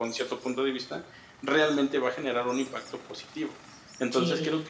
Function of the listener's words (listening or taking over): listening